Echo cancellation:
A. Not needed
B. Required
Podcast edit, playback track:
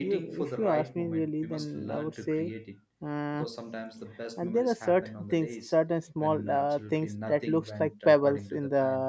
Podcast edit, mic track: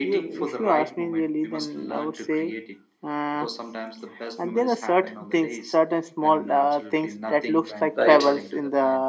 B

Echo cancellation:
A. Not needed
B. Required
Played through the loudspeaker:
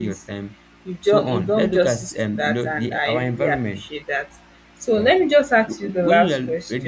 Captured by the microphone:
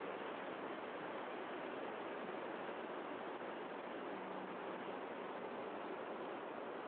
A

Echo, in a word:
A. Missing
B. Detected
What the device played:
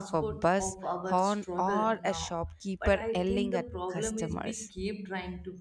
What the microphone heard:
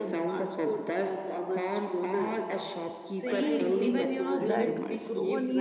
B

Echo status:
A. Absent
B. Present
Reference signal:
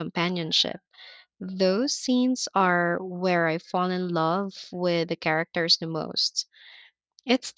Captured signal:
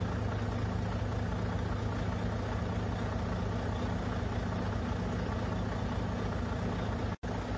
A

